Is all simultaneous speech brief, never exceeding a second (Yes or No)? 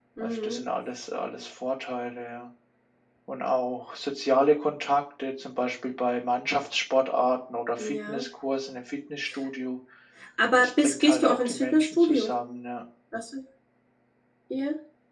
No